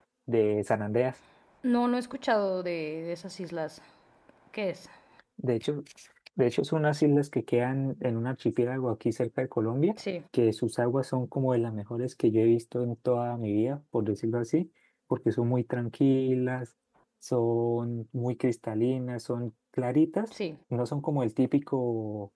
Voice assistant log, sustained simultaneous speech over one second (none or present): none